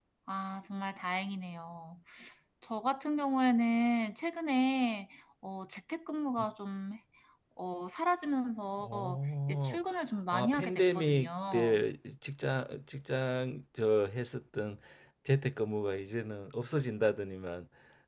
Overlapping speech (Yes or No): Yes